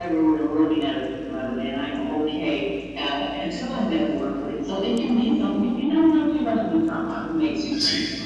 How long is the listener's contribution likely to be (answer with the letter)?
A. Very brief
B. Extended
B